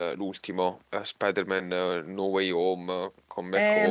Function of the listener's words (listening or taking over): taking over